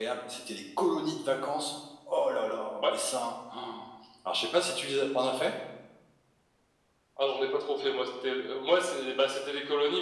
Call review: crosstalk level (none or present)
none